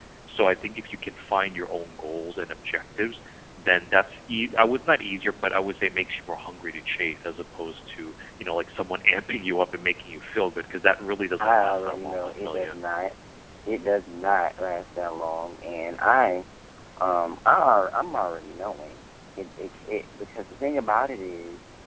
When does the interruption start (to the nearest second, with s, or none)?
11 s